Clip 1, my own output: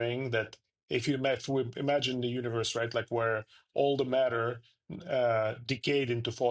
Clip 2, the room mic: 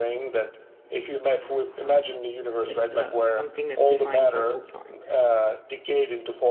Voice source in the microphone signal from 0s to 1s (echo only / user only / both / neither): echo only